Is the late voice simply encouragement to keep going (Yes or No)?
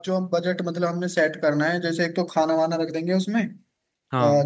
Yes